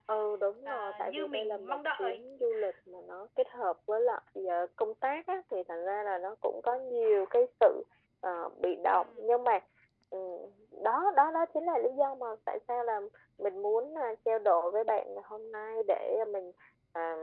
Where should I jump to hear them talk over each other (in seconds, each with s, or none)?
0.7 s